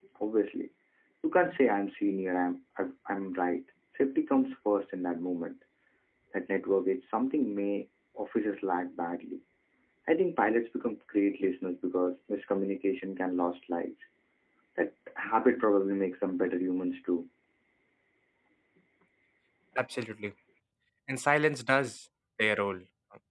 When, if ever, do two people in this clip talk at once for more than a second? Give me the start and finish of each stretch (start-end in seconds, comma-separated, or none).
none